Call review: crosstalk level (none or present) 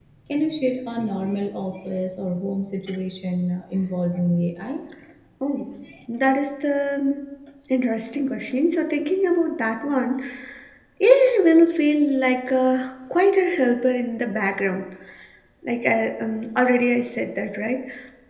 none